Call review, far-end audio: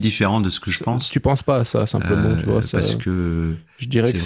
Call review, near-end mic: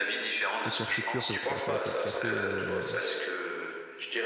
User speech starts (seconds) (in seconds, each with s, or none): 0.6 s